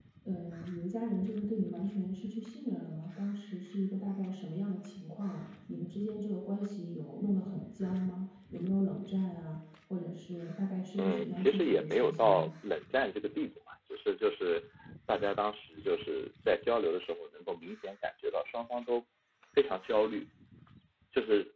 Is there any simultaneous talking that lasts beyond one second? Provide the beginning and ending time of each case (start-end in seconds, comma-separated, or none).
11.0-12.5